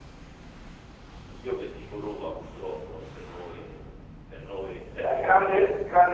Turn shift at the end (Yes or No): Yes